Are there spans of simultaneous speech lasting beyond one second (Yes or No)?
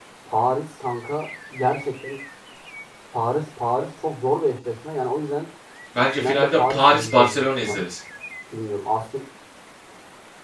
Yes